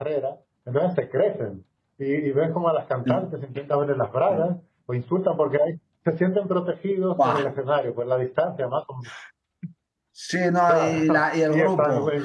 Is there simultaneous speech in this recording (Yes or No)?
Yes